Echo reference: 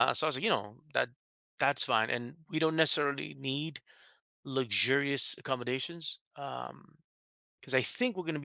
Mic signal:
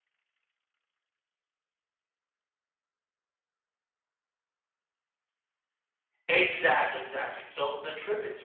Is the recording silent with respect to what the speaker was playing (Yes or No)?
Yes